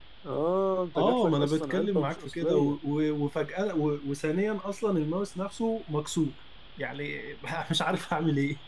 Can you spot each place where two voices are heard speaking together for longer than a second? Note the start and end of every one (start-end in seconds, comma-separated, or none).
0.9-2.8